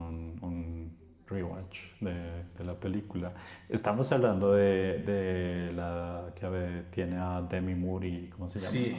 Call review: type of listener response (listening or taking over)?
taking over